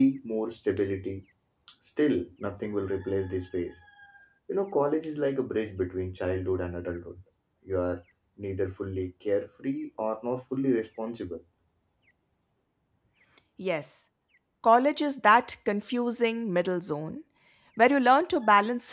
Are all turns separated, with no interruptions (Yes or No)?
Yes